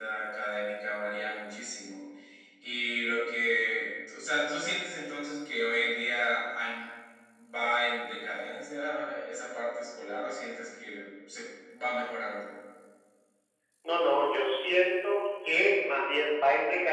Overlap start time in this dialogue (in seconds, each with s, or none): none